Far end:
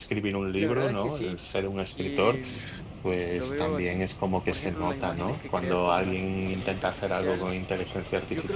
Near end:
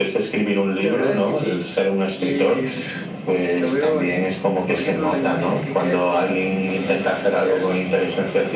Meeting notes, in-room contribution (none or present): none